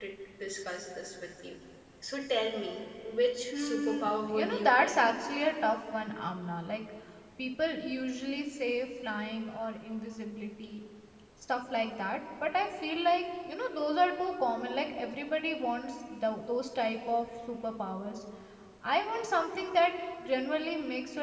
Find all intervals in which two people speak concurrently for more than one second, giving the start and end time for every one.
3.5-4.9

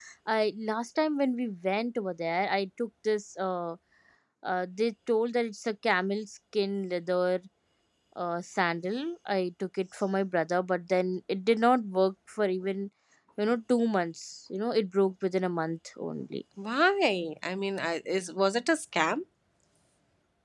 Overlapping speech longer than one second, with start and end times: none

